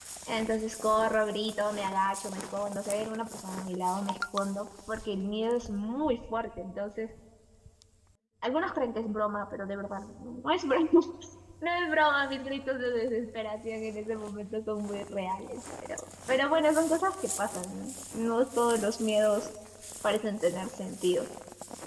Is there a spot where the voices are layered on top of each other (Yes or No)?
No